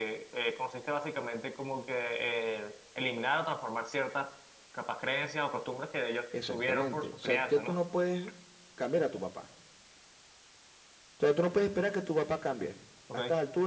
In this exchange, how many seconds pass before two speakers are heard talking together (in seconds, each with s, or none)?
6.3 s